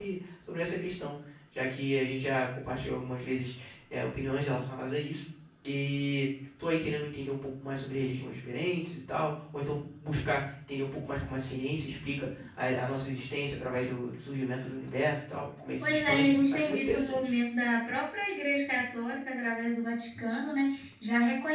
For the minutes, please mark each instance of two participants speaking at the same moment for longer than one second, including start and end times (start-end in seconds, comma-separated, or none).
15.8-17.3